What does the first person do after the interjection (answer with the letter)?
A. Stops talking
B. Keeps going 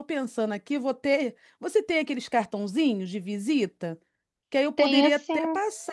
B